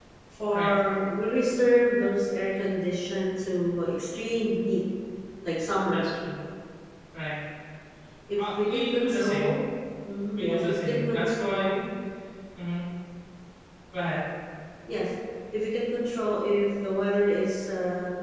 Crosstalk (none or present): present